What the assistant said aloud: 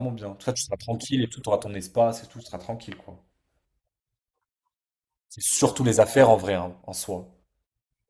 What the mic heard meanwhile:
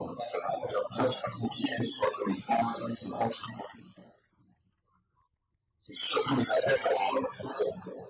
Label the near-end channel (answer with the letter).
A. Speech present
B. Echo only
B